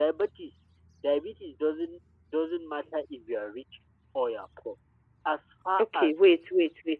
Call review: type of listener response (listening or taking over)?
taking over